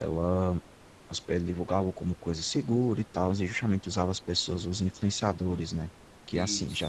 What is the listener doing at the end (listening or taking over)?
listening